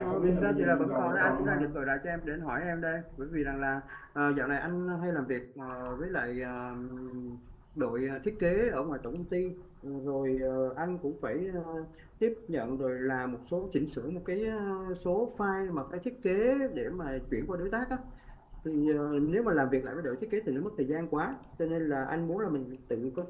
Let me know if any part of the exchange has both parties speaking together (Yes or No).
Yes